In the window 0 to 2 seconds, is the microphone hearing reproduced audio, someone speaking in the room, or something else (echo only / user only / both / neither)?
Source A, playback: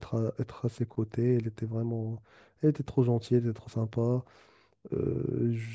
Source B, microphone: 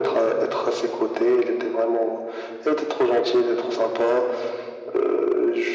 echo only